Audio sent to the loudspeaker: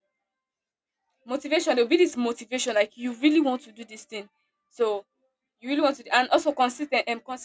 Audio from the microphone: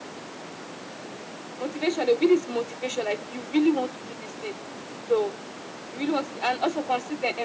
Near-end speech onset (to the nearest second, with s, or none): none